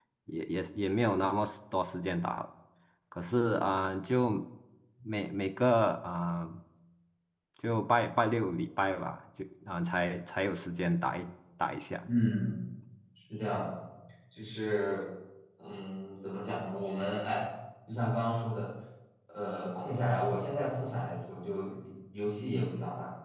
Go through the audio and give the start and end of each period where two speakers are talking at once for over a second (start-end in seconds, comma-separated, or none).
none